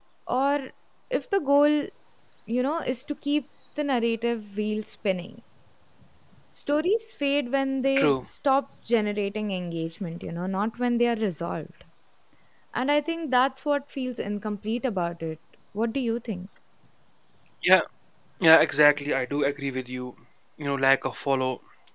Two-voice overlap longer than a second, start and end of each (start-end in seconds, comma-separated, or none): none